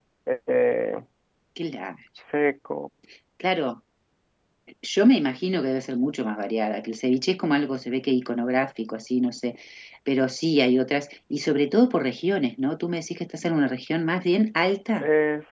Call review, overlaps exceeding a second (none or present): none